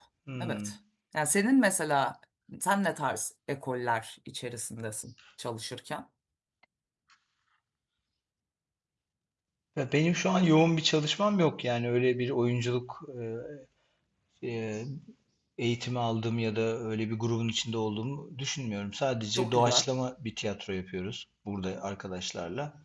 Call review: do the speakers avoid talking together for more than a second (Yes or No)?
Yes